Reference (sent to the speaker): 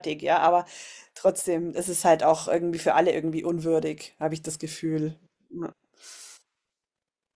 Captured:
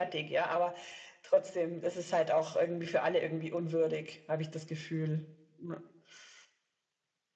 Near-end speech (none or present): none